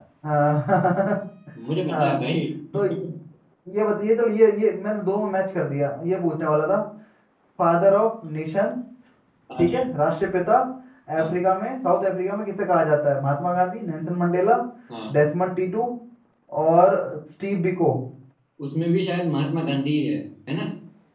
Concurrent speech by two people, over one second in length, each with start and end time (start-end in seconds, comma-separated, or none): none